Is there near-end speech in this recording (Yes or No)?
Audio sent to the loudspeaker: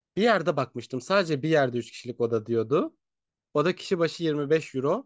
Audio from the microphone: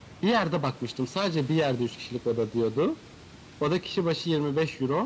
No